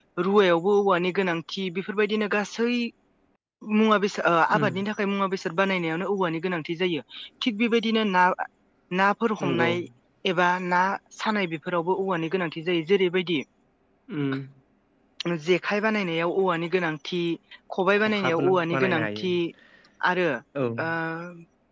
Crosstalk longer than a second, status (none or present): present